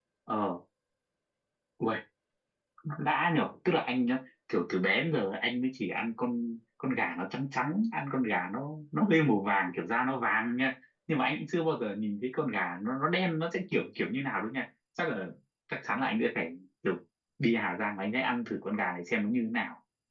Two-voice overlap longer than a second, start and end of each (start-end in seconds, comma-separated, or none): none